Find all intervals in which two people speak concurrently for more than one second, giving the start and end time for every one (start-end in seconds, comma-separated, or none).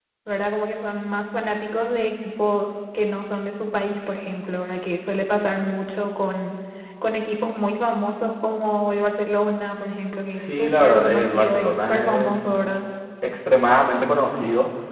10.3-12.4